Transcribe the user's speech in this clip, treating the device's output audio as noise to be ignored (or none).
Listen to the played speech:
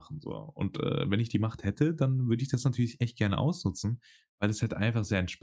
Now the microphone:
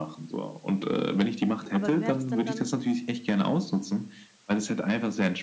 Aber wie wäre das denn dann